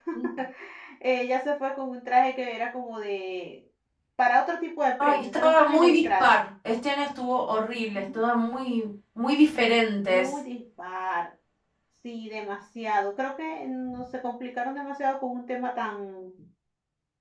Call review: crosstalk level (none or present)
present